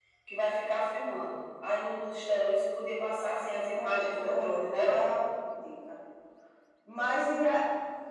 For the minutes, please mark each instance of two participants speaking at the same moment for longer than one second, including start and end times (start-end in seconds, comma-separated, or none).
3.7-5.0